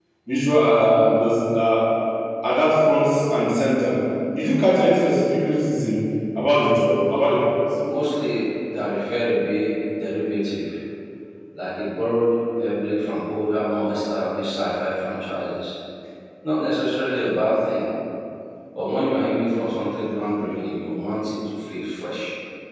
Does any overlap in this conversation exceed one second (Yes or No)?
No